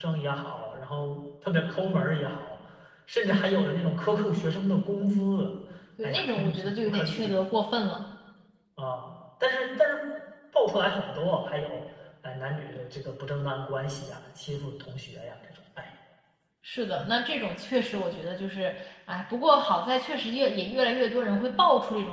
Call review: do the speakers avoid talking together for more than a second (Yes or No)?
No